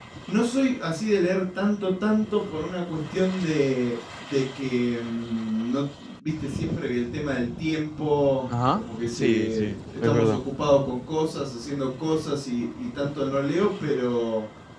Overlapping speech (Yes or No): Yes